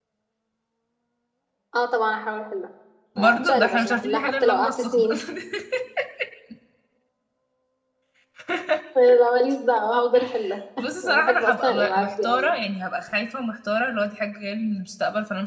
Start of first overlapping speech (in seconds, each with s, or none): 3.2 s